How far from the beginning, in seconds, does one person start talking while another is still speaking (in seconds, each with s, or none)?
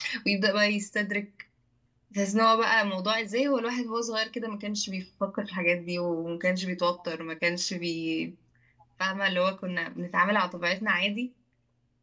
none